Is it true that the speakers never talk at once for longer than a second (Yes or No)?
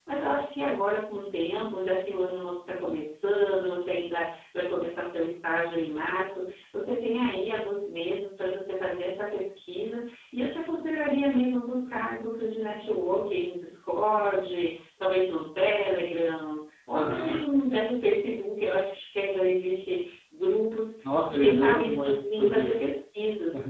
No